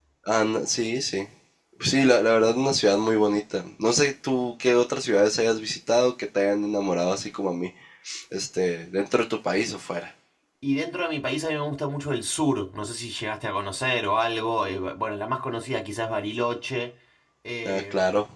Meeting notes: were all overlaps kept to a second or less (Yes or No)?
Yes